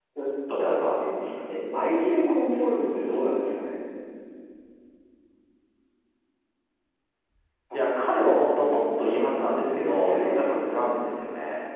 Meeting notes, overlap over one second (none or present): present